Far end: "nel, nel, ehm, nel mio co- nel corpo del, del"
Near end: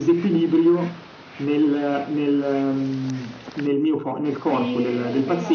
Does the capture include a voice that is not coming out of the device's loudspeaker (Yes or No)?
Yes